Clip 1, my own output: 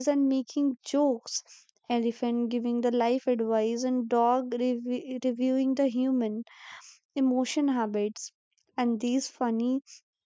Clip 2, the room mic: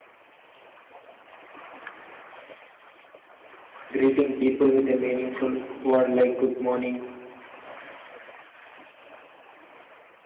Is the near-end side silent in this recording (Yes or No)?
No